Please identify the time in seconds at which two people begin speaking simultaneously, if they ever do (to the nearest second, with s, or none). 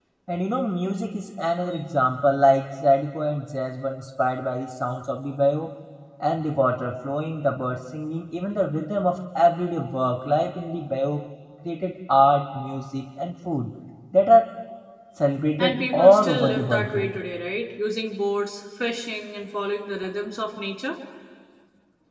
16 s